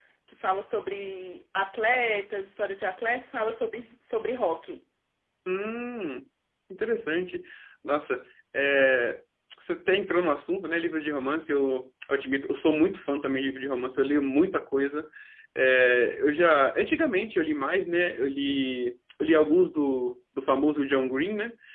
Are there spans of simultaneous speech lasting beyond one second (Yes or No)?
No